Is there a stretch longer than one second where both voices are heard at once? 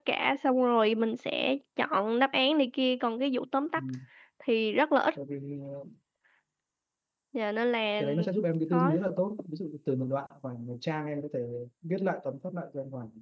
No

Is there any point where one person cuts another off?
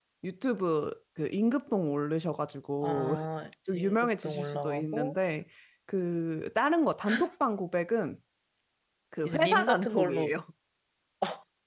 Yes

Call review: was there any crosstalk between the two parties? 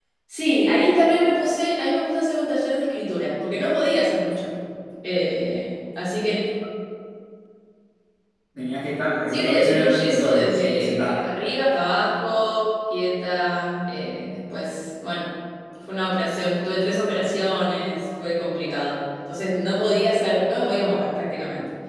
Yes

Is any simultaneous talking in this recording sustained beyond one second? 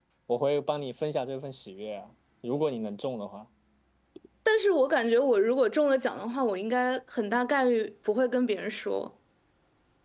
No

